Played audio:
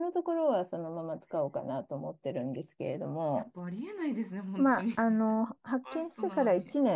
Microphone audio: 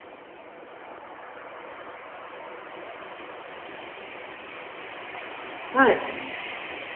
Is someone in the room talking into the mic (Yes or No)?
Yes